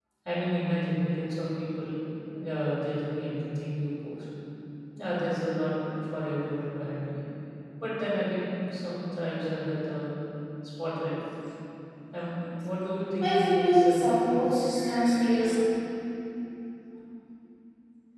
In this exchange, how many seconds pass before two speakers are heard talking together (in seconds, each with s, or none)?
13.2 s